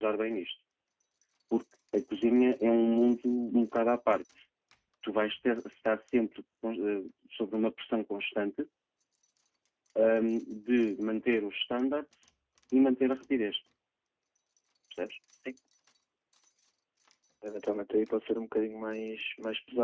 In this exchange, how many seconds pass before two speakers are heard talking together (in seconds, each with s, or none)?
none